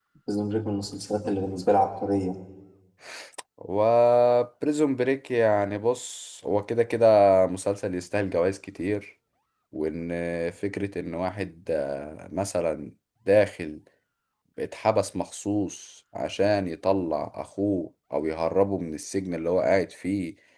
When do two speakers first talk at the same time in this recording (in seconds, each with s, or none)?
none